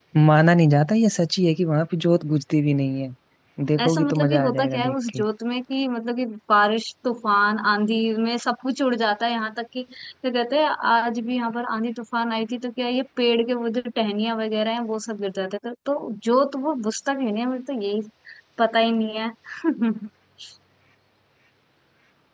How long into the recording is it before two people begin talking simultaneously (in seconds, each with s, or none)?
3.8 s